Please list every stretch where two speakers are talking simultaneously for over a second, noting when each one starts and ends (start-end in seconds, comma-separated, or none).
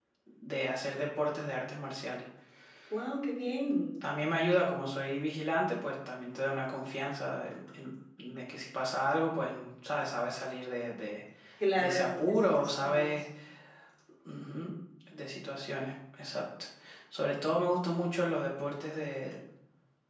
11.8-13.2